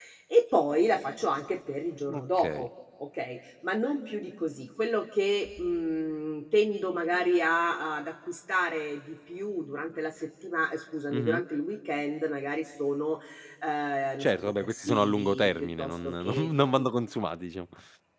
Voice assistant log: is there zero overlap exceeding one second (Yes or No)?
No